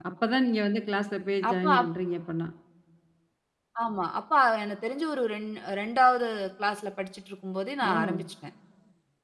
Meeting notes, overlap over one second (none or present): none